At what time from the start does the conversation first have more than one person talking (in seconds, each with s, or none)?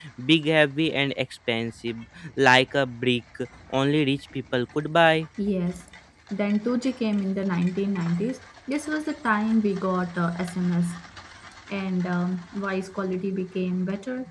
none